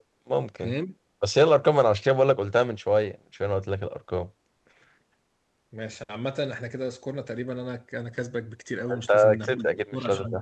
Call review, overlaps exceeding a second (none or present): present